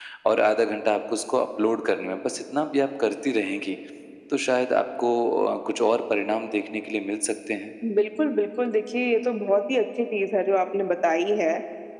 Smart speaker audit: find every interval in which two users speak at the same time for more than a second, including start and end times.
none

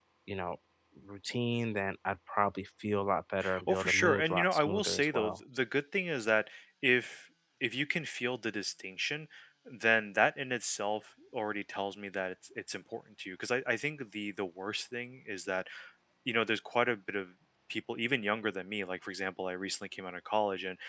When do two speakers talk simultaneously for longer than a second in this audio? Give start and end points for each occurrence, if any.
3.7-5.4

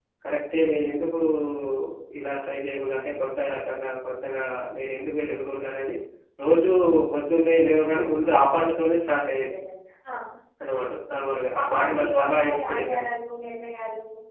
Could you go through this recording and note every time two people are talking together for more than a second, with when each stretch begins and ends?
11.2-13.0

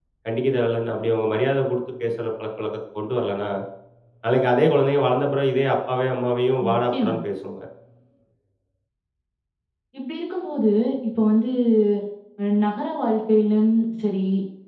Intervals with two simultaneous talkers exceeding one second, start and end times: none

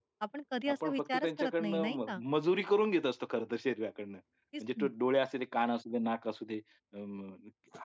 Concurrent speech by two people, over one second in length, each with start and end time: 0.7-2.2

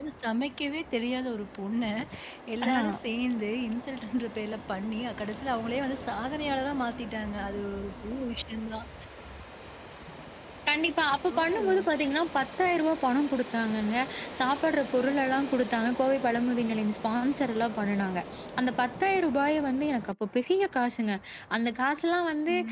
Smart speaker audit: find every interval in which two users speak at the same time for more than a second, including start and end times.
none

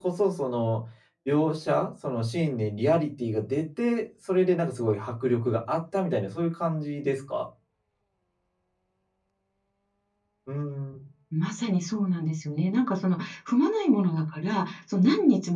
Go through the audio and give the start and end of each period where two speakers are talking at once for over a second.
none

